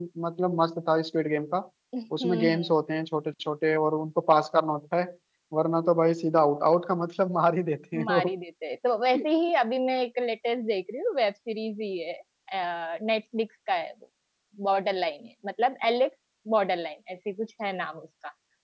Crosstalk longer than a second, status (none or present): none